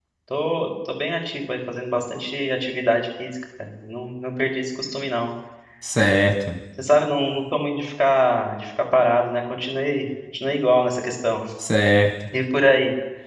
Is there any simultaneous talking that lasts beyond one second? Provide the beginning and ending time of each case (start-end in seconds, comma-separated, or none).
none